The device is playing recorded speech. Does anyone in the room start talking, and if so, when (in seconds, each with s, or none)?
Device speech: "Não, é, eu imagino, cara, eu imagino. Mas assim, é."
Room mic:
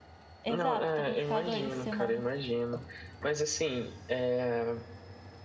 0.4 s